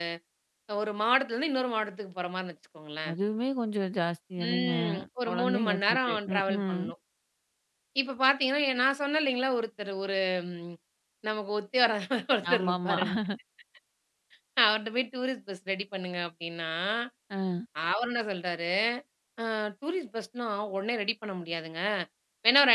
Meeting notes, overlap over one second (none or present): present